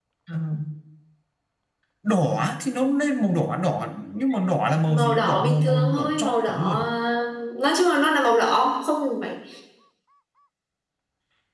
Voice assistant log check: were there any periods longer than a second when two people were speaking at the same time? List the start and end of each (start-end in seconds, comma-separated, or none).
4.9-6.8